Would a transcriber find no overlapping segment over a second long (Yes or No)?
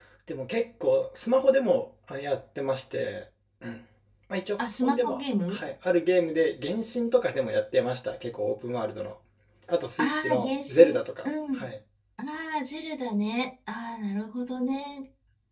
No